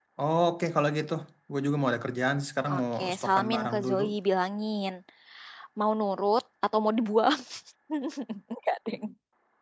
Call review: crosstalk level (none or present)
present